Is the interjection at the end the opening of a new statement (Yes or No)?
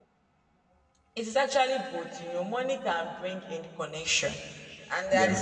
No